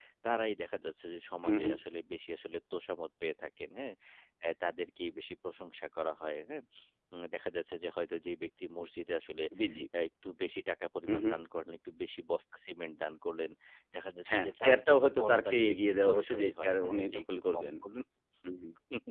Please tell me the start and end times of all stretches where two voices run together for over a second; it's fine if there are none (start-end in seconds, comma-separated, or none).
14.3-17.7